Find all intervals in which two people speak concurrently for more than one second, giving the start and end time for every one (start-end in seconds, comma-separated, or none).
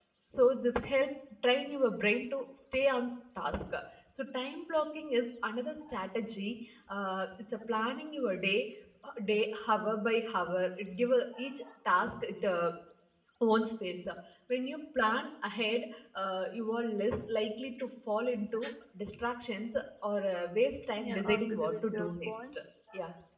21.0-22.3